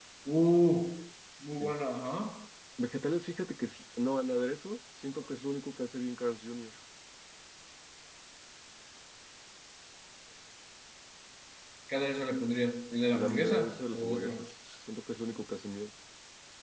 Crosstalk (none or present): present